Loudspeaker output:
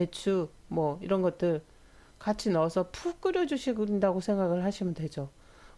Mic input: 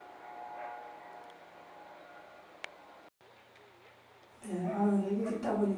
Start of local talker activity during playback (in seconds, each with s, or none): 4.4 s